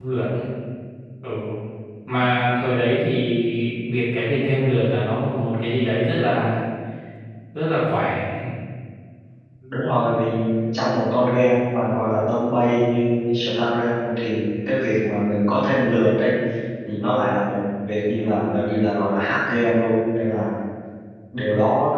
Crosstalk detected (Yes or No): No